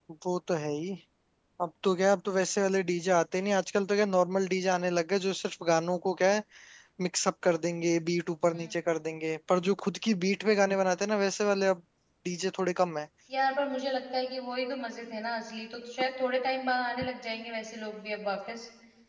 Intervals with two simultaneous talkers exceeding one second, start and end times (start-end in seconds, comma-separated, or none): none